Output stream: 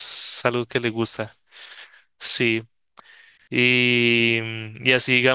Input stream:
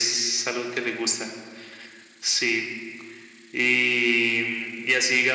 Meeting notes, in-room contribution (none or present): none